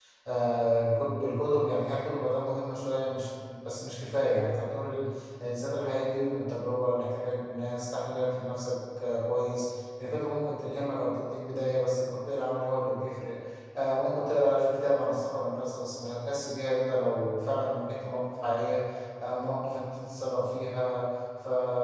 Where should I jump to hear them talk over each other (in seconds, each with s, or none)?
none